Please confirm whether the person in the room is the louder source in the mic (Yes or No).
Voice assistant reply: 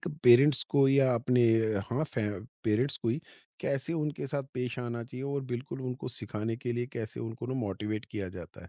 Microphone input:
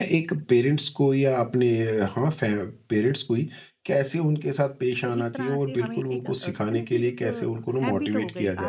No